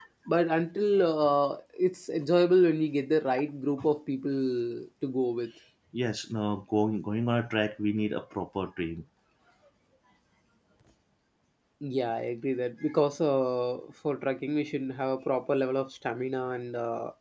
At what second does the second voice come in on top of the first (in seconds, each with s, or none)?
none